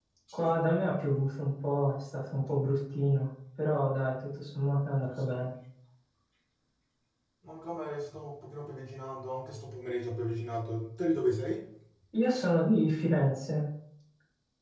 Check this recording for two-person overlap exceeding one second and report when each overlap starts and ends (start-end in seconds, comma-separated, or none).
none